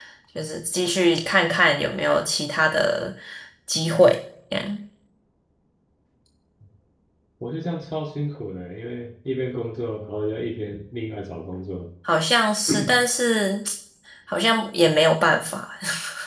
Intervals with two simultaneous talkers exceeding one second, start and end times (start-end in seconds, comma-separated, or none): none